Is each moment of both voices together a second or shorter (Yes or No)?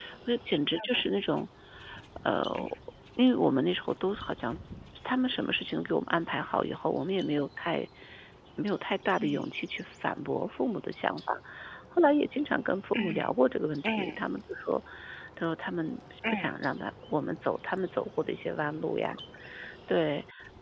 Yes